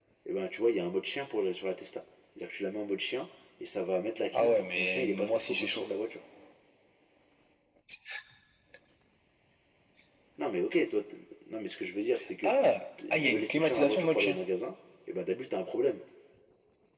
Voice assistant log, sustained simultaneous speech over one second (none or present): present